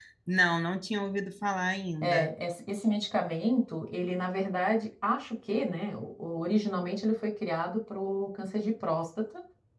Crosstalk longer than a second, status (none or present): none